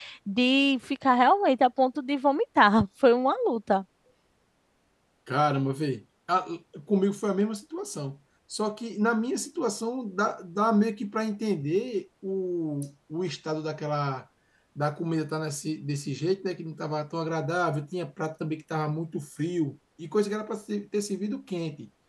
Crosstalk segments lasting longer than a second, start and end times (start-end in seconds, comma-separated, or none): none